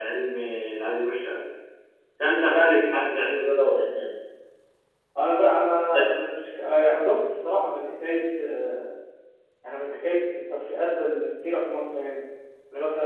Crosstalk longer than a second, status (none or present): none